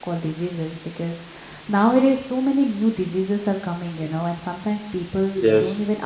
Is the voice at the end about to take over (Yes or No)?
No